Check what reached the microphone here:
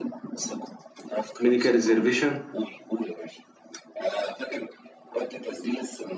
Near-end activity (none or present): present